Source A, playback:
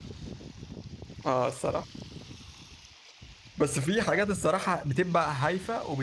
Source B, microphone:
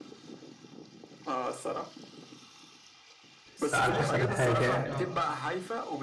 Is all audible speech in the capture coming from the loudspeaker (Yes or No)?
No